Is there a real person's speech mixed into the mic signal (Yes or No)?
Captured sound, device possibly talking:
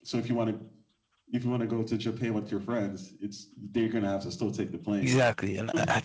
Yes